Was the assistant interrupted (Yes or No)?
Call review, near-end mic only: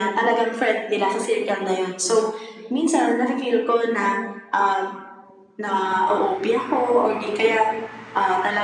No